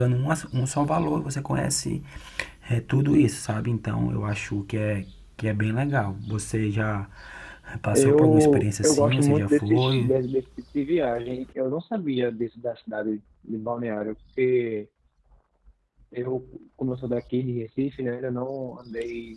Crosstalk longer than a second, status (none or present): present